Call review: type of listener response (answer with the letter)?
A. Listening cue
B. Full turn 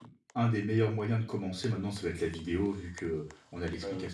A